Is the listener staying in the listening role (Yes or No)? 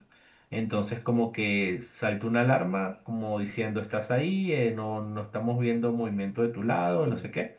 Yes